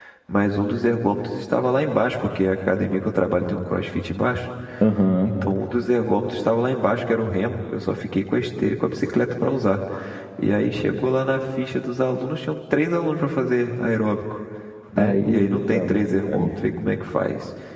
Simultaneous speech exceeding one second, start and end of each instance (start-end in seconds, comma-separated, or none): 15.0-16.5